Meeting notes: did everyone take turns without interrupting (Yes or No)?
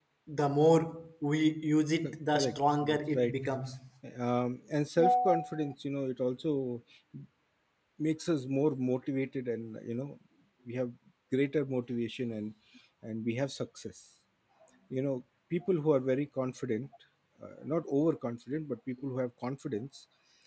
No